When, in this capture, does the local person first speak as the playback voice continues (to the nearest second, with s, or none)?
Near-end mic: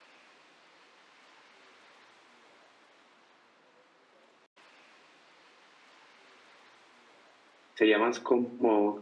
8 s